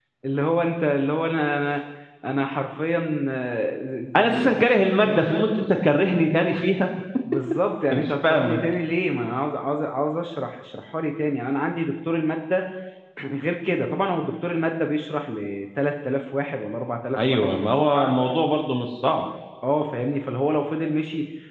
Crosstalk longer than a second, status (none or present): present